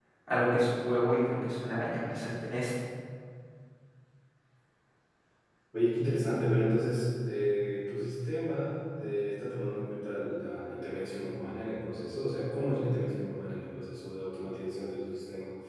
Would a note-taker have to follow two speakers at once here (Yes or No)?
No